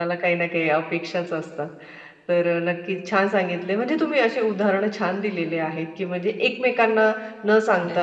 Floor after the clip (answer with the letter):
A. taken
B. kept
B